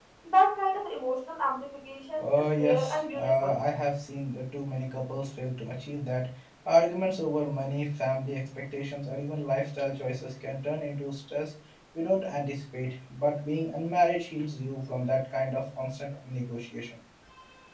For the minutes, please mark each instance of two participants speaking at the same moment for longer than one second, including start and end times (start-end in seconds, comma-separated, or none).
2.2-3.6